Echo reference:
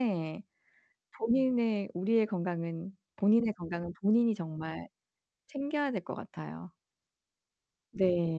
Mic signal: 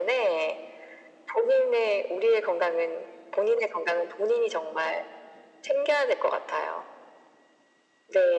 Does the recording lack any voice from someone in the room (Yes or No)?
Yes